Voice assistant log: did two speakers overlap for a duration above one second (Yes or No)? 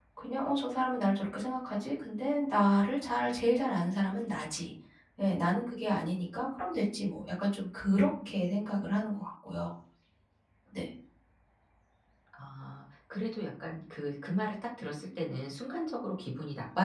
No